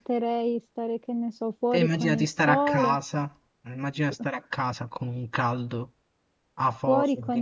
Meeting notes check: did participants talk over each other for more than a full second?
Yes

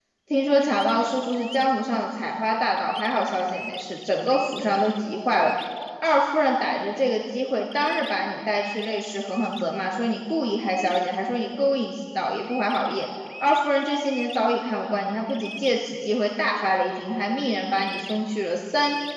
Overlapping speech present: No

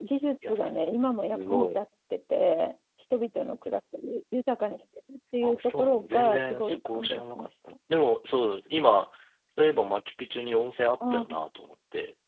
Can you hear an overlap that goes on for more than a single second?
Yes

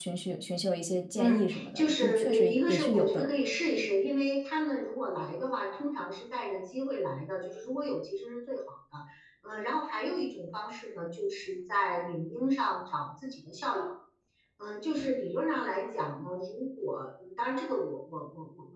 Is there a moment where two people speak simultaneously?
Yes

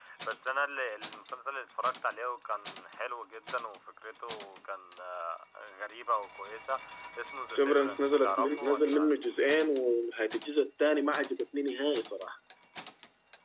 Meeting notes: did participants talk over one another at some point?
Yes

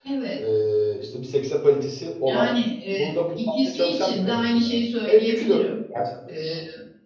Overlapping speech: Yes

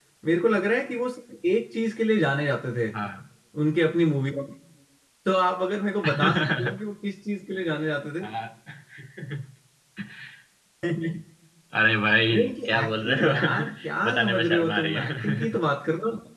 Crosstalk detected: Yes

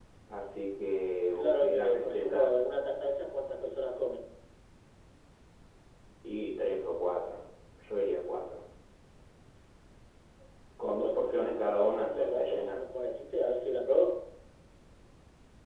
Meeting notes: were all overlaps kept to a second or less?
No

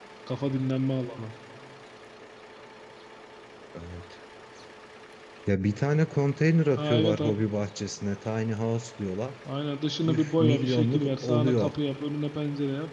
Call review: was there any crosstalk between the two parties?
Yes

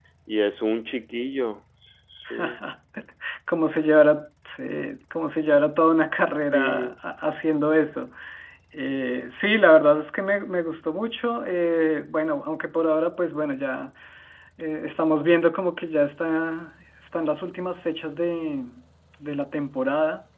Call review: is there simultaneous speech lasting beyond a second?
No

